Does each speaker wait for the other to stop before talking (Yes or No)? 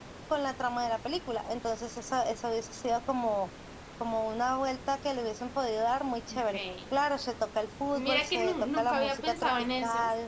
No